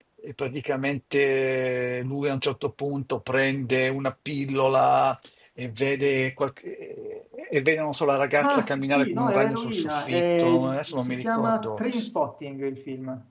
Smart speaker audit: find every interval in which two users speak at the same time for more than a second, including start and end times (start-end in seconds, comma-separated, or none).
8.4-11.8